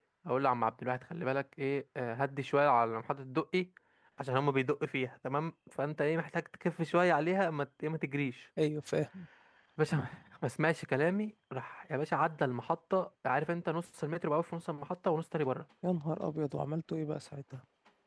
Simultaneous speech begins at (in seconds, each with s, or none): none